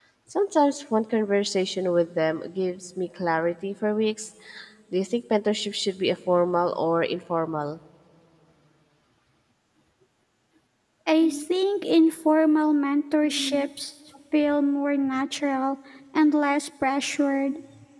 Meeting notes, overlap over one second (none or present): none